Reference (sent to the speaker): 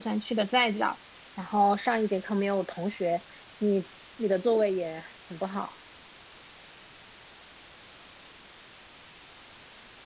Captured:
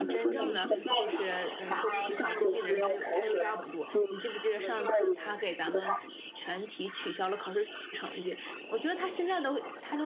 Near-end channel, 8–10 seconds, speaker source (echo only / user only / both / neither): user only